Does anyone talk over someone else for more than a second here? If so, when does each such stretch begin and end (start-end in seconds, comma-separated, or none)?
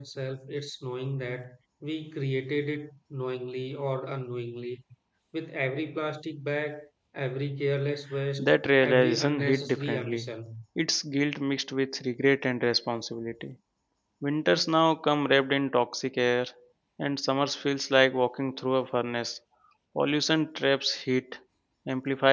8.4-10.2